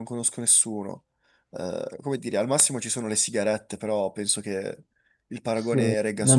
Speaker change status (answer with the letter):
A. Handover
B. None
A